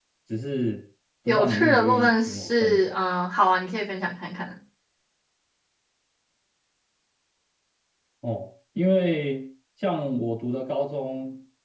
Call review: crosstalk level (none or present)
present